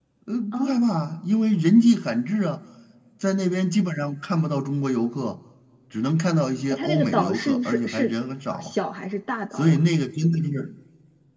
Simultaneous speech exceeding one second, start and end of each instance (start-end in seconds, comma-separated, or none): 6.7-8.1